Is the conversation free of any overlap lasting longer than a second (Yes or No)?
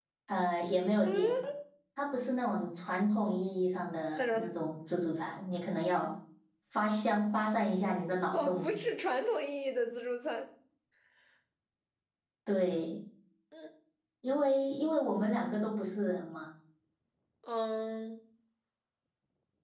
Yes